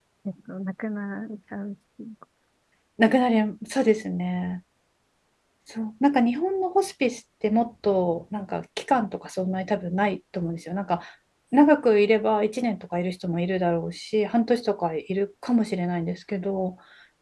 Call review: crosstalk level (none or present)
none